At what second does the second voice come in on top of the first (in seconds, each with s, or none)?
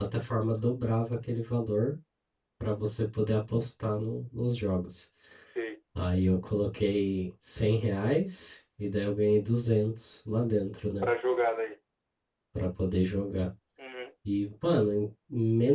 none